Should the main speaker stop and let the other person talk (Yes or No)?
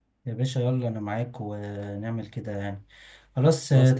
No